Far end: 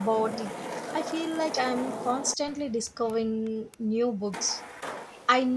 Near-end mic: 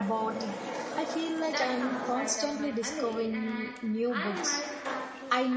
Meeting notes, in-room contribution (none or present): present